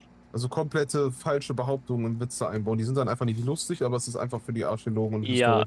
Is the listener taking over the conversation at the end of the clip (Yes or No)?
Yes